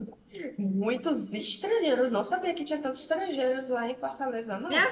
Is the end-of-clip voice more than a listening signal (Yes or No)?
Yes